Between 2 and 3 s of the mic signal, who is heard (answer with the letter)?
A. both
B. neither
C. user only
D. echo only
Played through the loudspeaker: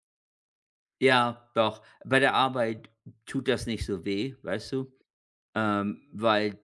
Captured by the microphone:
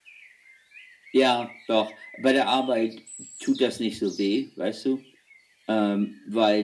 D